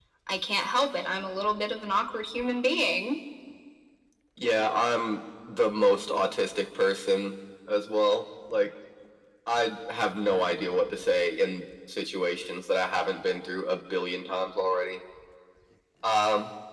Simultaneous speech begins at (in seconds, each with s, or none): none